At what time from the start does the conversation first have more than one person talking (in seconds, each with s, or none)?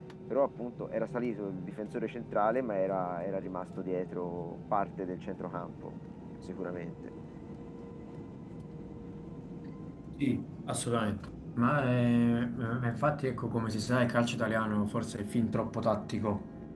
none